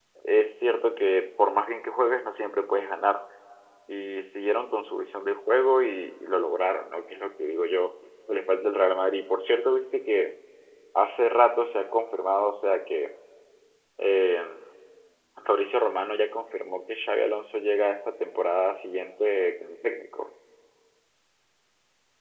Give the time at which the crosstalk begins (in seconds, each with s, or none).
none